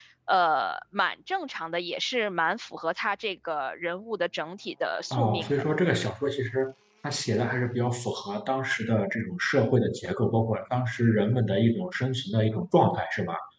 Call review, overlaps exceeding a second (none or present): none